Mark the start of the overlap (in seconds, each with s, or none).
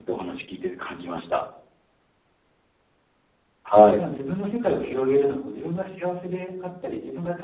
none